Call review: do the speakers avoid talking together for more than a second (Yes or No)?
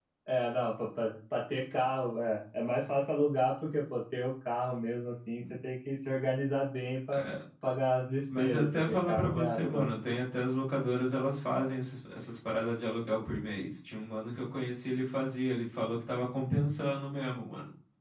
No